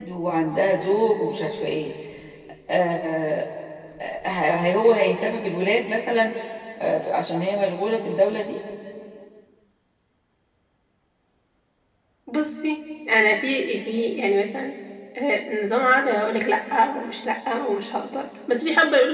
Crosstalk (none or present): none